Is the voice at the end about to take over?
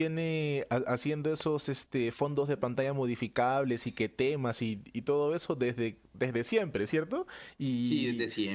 Yes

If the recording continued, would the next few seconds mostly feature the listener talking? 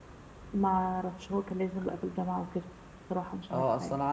Yes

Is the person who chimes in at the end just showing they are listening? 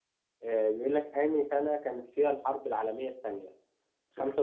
Yes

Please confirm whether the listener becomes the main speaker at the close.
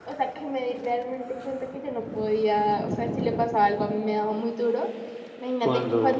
No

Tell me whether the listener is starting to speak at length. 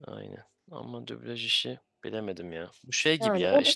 No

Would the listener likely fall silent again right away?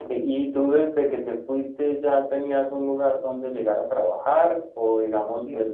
Yes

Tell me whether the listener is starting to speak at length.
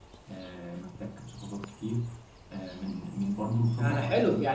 Yes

